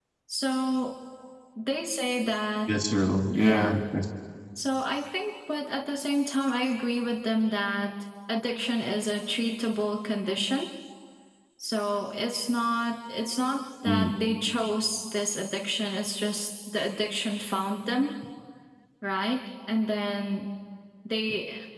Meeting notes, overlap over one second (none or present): none